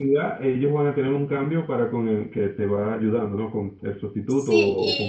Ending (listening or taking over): taking over